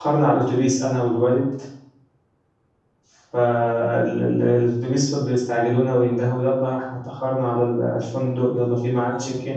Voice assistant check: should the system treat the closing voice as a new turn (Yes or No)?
No